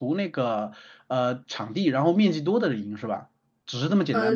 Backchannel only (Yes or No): No